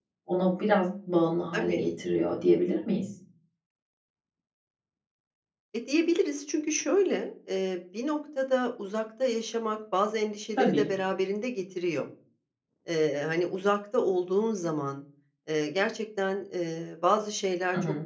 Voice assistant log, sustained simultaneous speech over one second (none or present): none